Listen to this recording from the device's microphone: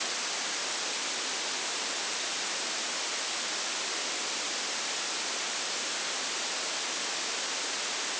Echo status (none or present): none